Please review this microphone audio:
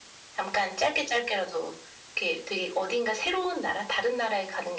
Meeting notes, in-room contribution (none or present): none